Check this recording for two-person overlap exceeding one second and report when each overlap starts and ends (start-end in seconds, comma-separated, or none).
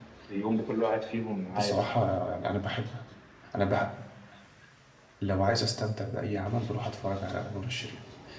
none